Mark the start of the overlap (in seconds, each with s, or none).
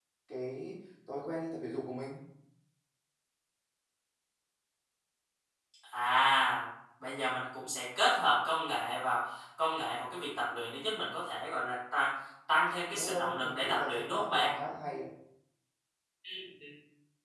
12.9 s